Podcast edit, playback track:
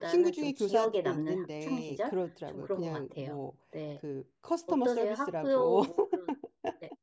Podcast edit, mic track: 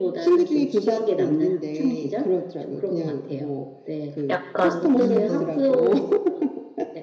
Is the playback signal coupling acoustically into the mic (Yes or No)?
Yes